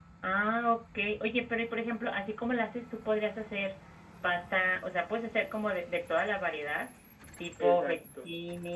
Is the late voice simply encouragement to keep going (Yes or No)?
Yes